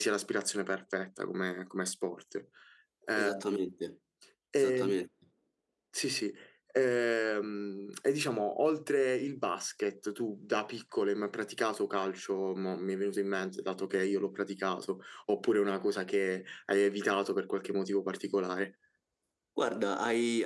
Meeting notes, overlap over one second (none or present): none